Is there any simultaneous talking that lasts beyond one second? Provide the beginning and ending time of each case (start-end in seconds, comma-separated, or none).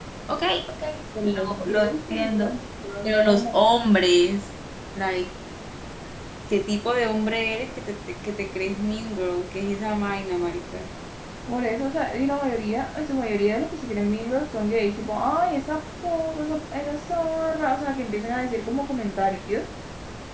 1.2-2.5